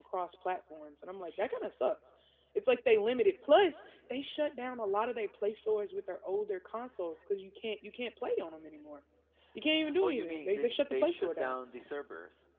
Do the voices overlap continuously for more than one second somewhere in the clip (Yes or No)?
Yes